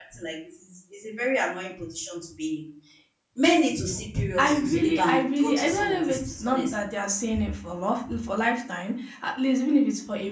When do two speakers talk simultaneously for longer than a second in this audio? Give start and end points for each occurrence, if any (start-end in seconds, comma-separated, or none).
4.4-6.7